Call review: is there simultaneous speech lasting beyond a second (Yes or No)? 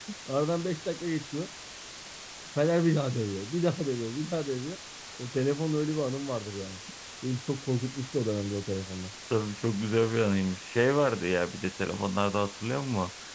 No